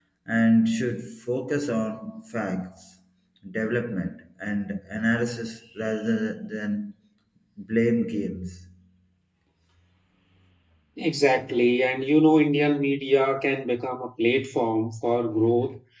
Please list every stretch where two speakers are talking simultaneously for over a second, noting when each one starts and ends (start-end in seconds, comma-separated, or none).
none